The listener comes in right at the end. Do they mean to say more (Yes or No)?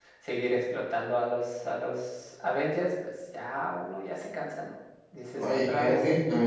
Yes